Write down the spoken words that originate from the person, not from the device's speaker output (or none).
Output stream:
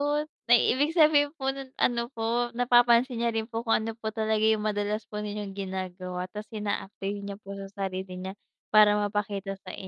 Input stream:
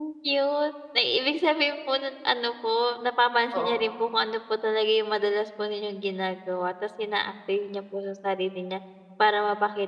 Oo.